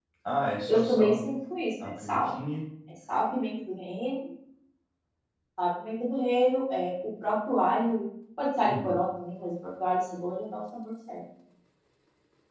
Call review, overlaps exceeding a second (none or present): none